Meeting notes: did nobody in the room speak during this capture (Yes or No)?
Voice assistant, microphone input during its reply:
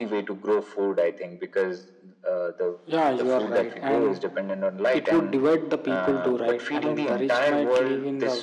No